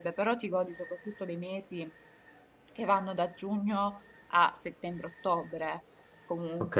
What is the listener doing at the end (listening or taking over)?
taking over